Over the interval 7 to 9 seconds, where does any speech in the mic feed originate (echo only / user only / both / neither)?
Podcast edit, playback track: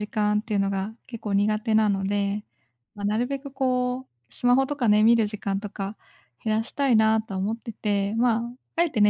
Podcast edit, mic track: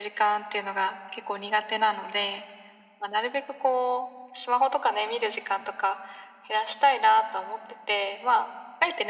echo only